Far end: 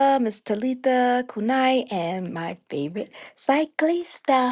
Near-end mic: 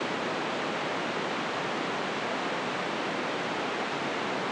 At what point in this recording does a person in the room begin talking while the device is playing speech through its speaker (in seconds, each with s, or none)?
none